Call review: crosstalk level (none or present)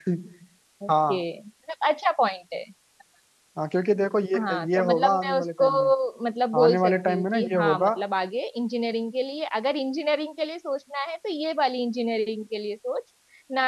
present